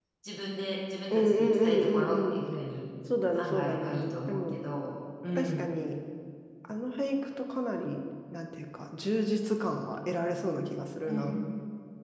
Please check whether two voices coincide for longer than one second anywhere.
Yes, from 1.1 s

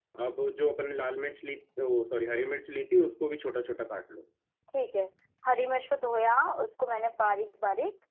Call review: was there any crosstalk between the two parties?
No

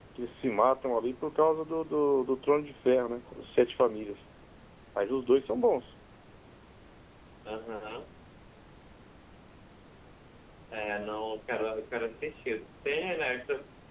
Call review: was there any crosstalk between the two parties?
No

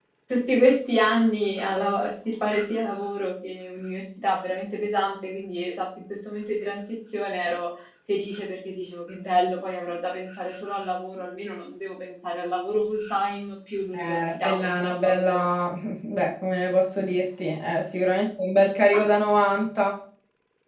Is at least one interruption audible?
Yes, from 13.9 s

